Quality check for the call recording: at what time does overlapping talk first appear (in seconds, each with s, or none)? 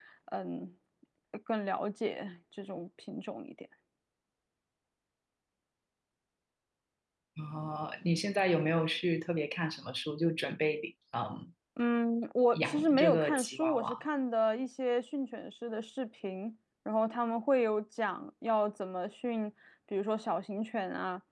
12.5 s